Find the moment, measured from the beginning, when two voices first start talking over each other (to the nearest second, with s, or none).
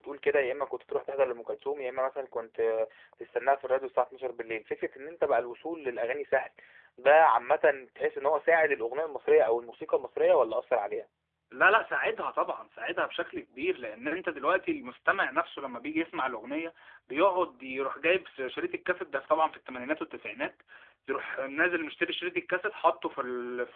none